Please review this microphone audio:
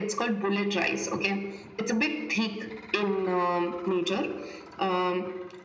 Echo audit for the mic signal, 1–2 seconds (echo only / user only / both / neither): echo only